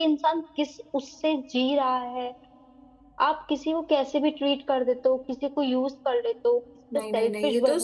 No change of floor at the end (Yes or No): No